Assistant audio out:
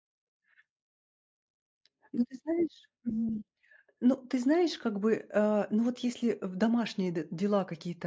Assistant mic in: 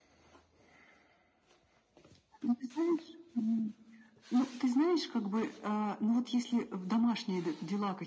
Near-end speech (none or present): none